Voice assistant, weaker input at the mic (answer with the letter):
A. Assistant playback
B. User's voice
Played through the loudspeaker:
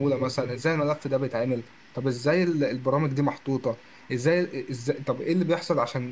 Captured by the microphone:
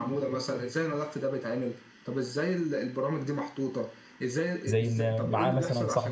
A